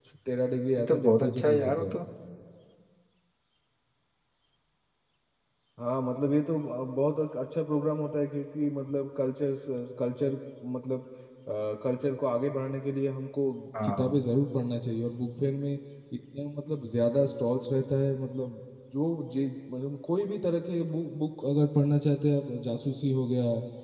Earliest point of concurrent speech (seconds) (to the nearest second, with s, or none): 1 s